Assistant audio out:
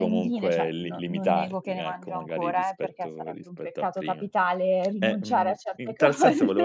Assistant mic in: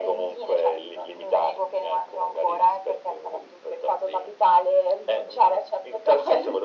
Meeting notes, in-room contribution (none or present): none